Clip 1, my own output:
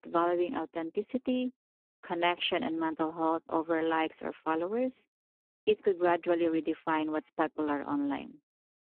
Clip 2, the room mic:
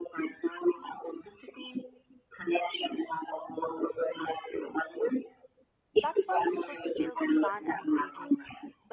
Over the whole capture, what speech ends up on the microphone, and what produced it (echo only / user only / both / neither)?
both